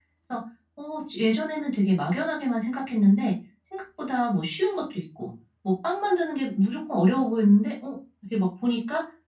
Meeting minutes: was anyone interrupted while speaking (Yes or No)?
No